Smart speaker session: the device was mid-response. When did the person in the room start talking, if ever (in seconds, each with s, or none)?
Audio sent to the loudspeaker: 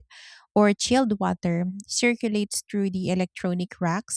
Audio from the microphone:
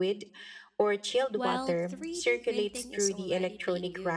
1.3 s